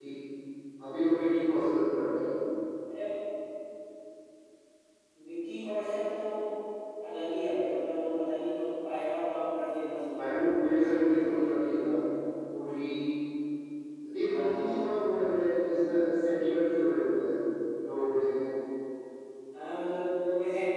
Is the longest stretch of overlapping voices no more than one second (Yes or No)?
No